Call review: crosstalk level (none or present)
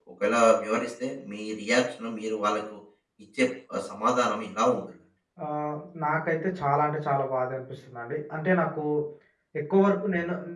none